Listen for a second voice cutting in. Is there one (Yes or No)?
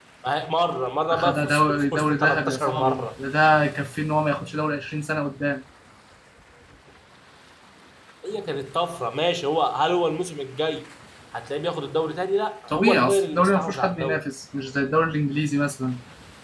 Yes